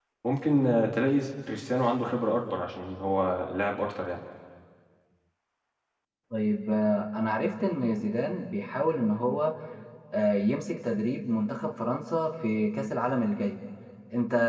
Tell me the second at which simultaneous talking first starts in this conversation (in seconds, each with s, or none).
none